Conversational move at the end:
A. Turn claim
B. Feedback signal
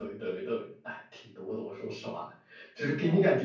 B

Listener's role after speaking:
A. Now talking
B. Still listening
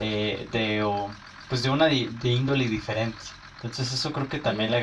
B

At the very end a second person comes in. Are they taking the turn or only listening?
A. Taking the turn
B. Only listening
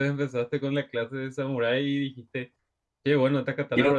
B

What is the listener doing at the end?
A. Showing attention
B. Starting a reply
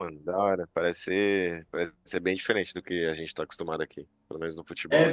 B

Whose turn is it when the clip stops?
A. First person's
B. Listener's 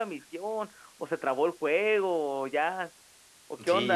B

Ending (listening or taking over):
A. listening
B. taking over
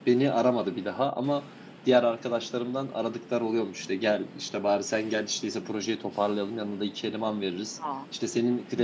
A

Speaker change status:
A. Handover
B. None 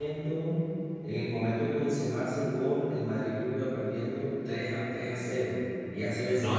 A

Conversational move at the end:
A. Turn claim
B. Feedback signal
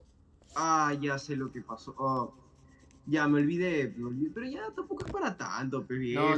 A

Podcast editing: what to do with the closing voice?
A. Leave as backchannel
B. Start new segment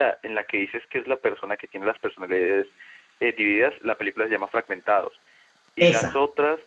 A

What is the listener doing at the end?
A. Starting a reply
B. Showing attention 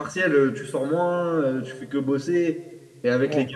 B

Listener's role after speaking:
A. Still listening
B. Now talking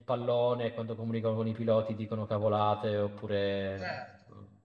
B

